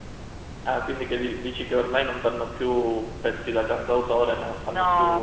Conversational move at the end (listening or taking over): taking over